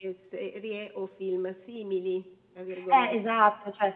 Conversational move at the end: taking over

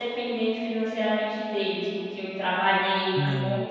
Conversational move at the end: listening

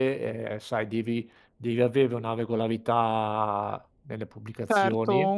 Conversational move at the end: taking over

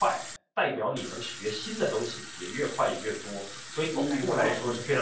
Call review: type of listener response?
taking over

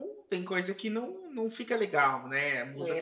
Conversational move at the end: taking over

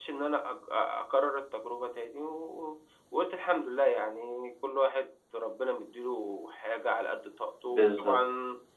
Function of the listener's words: listening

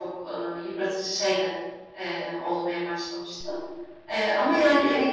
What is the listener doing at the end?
listening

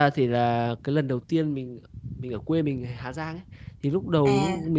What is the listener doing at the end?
listening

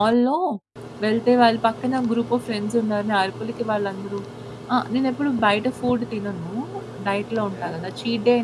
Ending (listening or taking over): listening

